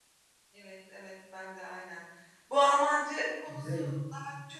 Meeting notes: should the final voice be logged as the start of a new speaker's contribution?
No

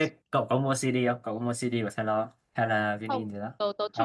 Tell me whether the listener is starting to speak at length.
Yes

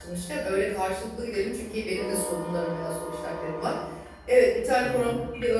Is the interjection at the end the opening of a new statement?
No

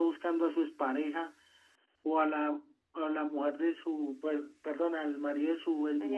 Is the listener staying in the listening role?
Yes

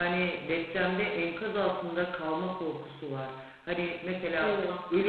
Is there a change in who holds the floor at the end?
No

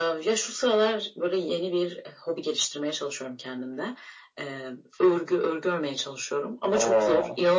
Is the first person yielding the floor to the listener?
No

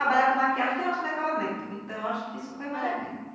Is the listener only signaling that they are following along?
No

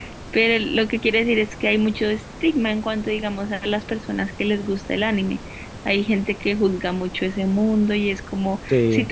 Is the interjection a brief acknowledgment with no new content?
Yes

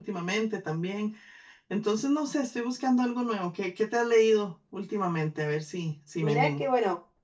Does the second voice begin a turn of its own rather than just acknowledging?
Yes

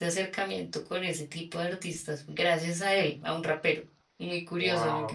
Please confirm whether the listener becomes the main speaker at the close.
Yes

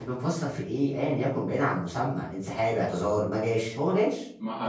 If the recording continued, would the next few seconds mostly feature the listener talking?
Yes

